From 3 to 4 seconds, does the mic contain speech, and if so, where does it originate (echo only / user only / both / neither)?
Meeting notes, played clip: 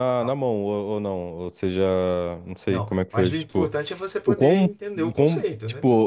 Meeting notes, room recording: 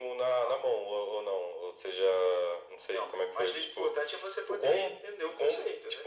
echo only